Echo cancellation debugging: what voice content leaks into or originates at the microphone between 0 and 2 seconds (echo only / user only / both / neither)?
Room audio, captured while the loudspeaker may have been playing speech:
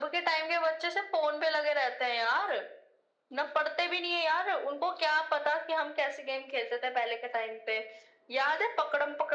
echo only